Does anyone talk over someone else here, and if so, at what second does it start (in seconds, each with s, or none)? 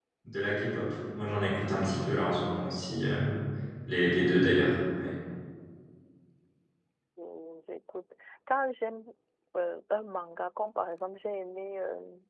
none